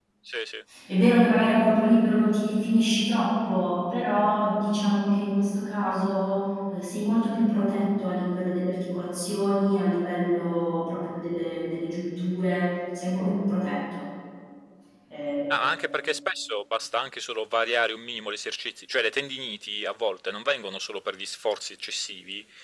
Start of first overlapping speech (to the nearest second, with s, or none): none